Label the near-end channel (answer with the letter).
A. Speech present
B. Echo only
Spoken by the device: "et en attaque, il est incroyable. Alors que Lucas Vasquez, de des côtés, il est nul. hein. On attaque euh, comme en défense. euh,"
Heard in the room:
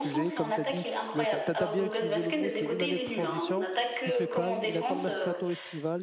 A